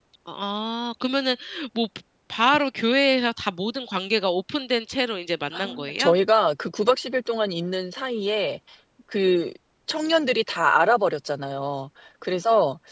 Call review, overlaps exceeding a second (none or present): none